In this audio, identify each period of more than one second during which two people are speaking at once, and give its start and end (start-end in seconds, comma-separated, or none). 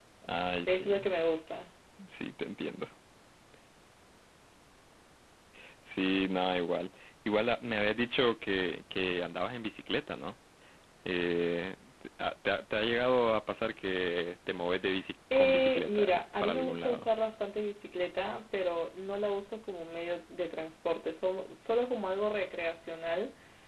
15.4-17.1